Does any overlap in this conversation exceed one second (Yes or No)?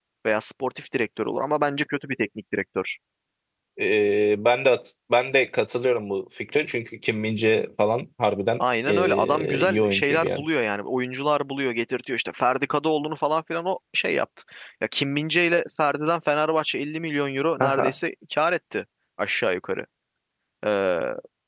Yes